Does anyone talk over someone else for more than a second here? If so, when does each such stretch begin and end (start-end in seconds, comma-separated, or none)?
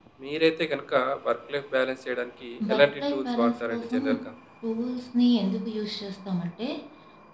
2.7-4.0